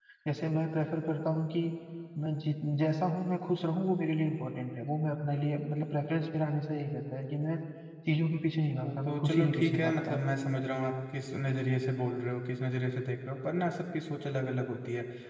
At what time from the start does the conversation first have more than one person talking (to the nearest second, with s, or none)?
9 s